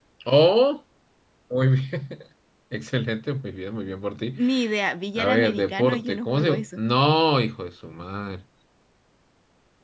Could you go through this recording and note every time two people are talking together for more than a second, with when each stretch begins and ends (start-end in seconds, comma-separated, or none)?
5.2-6.6